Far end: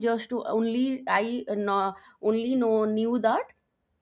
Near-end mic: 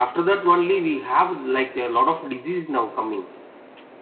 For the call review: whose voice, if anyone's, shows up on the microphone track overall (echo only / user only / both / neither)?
user only